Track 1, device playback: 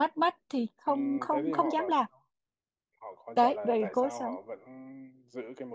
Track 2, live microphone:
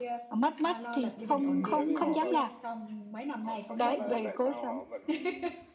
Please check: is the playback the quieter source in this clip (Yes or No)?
No